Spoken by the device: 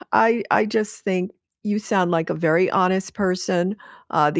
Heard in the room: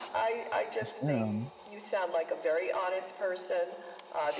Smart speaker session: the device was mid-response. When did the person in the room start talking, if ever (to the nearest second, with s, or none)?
1 s